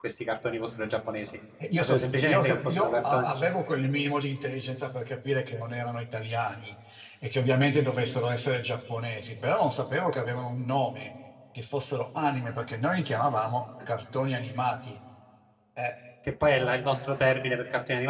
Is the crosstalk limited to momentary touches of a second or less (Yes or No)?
No